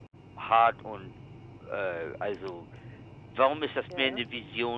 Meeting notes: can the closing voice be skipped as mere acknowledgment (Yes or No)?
Yes